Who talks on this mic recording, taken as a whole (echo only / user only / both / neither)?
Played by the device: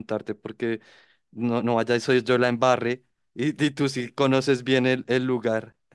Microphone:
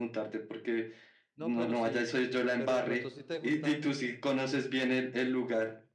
both